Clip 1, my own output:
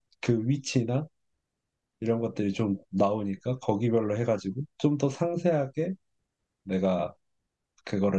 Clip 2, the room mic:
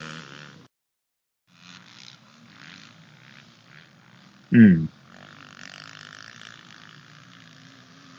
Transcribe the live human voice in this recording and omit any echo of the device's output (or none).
음,